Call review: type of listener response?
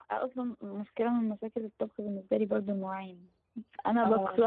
listening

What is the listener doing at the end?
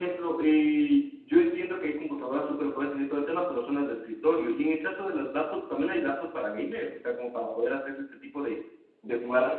taking over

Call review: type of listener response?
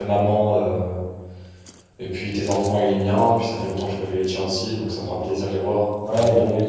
taking over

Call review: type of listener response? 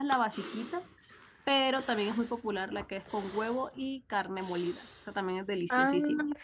taking over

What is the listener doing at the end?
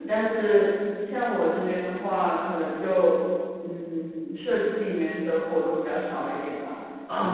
listening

